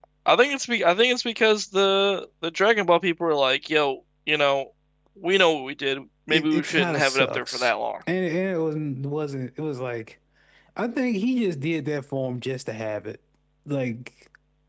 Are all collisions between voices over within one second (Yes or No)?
No